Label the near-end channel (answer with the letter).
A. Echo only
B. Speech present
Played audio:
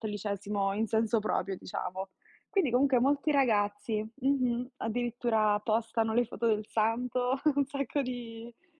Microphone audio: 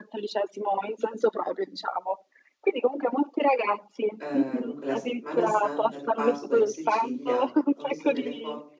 B